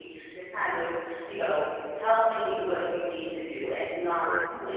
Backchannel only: Yes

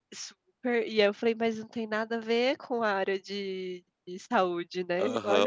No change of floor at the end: No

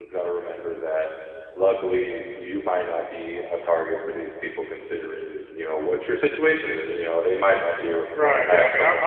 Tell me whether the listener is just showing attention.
No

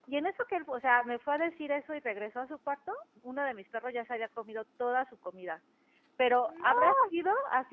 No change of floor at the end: Yes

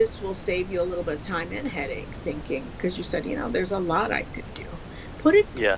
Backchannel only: Yes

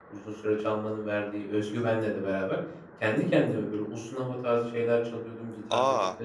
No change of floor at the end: Yes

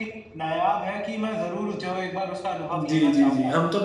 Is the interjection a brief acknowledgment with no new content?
No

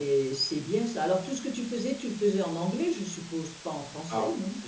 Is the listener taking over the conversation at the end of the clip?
Yes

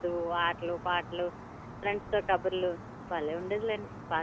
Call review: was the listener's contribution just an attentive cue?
No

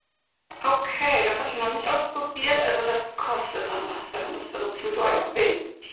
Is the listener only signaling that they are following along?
No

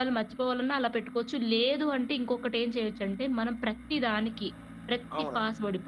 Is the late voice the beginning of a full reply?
No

